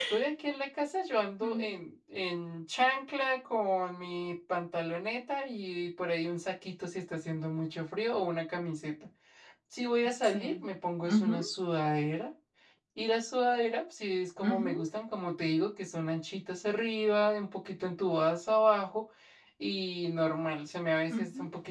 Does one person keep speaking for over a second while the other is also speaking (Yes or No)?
No